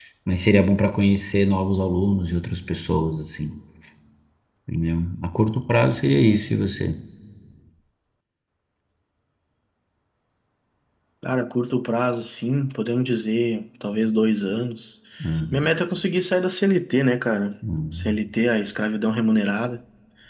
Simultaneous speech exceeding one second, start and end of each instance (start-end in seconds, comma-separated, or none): none